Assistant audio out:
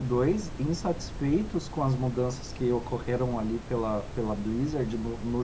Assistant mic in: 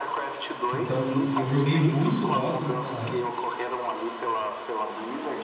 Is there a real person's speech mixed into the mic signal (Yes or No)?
Yes